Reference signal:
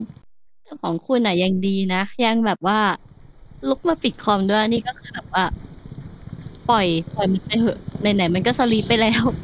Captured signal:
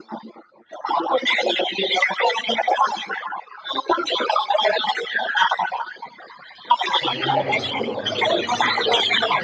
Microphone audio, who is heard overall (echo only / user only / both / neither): both